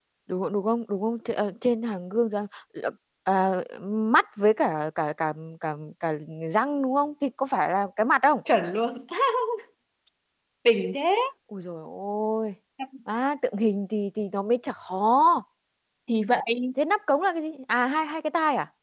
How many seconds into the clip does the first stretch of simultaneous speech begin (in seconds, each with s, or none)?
none